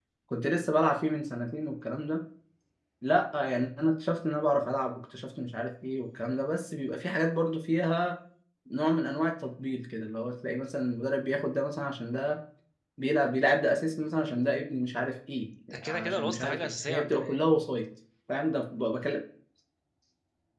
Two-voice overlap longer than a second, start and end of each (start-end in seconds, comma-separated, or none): 15.9-17.4